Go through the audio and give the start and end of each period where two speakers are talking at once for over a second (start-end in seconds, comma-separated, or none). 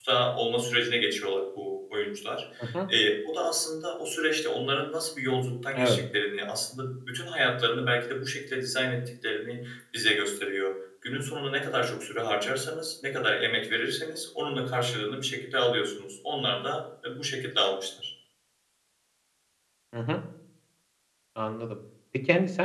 none